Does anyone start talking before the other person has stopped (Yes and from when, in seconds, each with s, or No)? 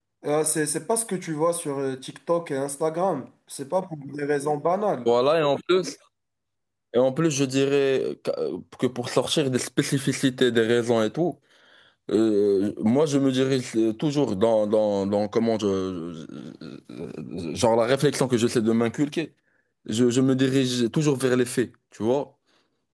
No